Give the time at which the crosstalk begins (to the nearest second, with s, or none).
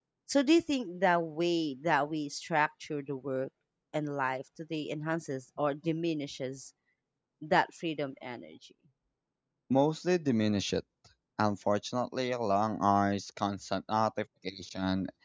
none